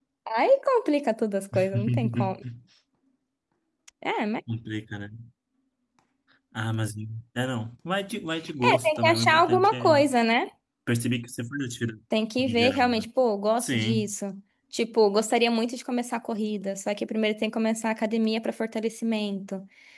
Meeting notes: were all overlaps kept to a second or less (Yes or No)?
No